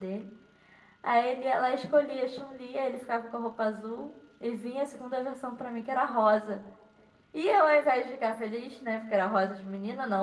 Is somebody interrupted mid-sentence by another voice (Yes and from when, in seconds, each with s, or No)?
No